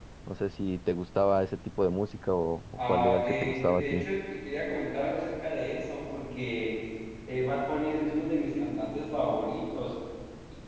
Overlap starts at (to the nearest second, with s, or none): 3 s